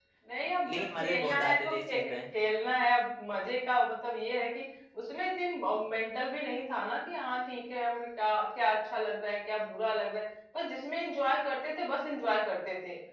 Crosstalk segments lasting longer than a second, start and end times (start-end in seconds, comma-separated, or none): 0.7-2.1